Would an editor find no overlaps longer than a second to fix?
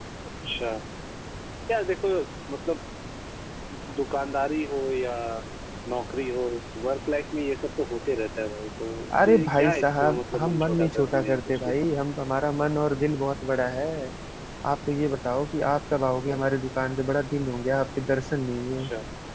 No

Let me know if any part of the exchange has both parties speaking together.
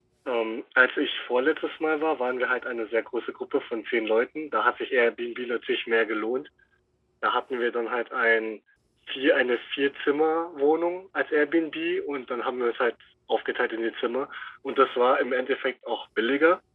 No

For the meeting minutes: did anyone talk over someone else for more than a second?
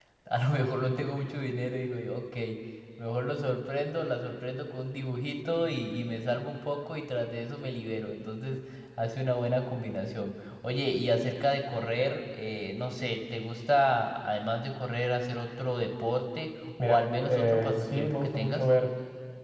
Yes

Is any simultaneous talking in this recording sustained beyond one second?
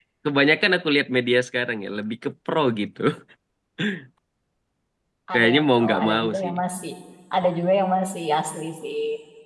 Yes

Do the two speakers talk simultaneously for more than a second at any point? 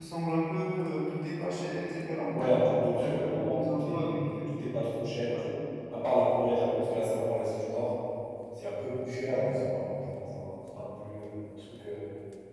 Yes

